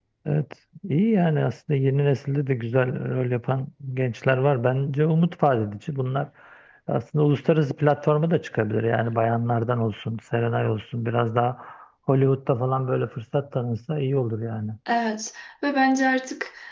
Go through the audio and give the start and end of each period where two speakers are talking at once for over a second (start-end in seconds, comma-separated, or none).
none